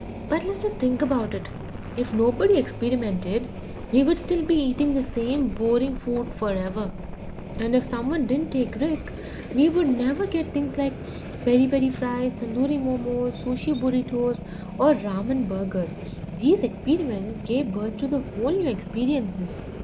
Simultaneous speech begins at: none

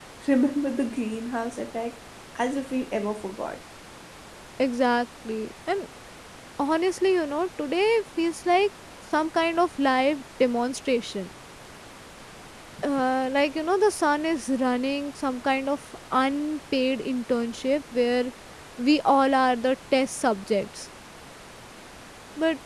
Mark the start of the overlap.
none

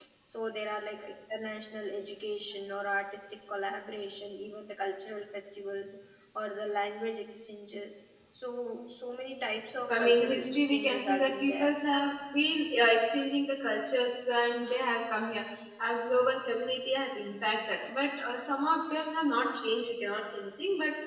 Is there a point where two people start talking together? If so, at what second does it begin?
9.9 s

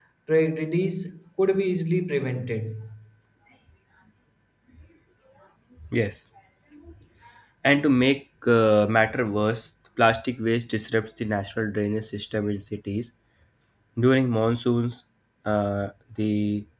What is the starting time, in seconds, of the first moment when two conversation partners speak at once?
none

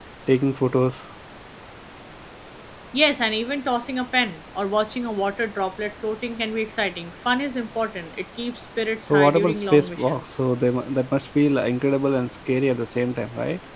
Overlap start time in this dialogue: 9.1 s

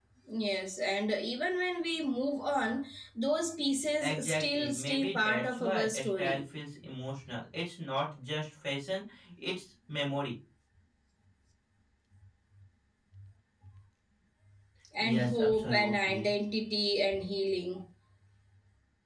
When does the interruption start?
4.0 s

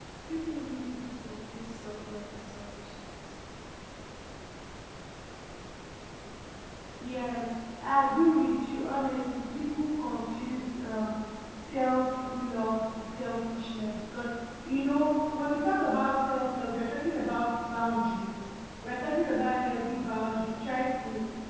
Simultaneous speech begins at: none

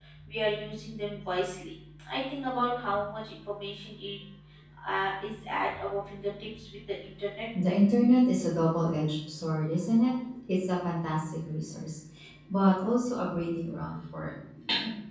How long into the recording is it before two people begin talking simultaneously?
none

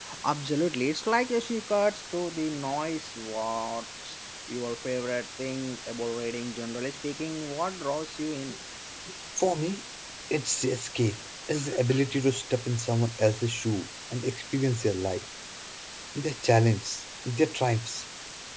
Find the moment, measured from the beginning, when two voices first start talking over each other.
none

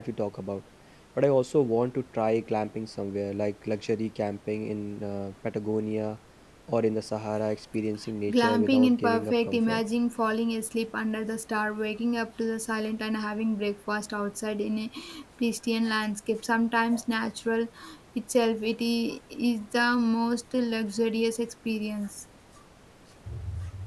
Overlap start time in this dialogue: 8.3 s

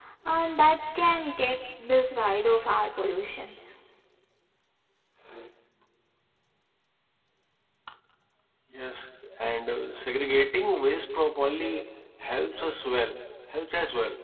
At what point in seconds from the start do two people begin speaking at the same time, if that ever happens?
none

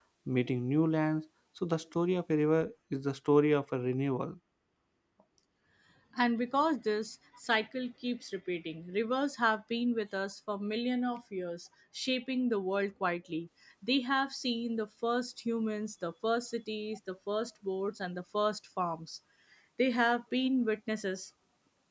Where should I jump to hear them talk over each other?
none

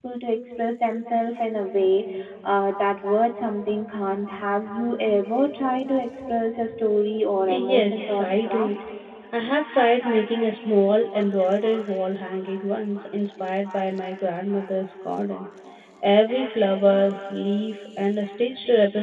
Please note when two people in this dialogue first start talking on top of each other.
7.4 s

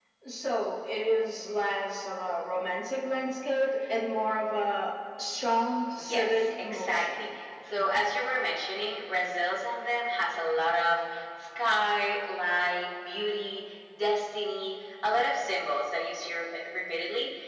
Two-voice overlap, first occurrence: 5.9 s

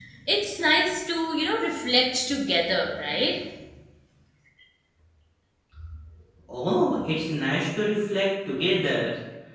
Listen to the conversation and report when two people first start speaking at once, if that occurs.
none

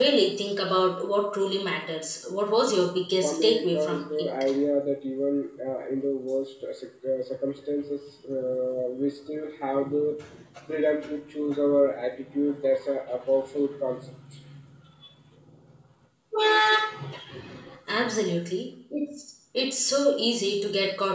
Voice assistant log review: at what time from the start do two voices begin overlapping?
3.2 s

